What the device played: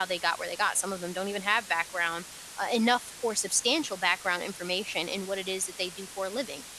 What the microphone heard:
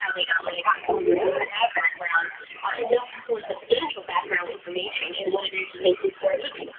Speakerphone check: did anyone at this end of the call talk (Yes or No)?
Yes